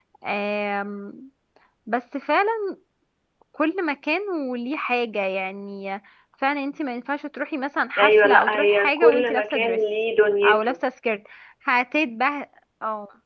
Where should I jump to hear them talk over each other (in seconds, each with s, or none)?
8.0 s